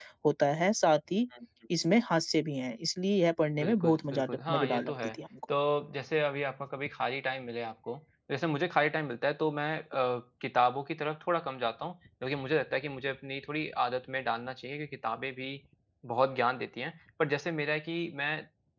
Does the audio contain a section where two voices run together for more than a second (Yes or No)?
Yes